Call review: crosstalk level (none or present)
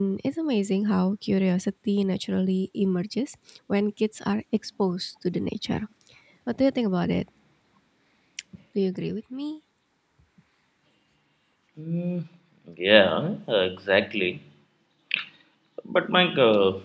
none